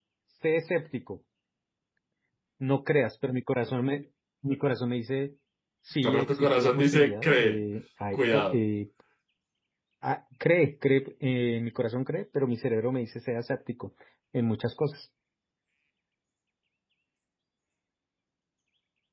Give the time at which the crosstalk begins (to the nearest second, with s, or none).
6 s